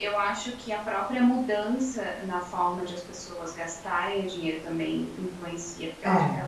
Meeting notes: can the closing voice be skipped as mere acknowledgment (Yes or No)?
Yes